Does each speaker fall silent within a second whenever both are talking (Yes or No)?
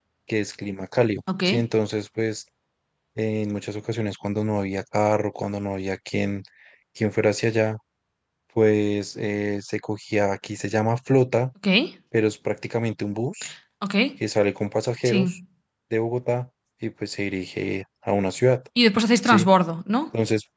Yes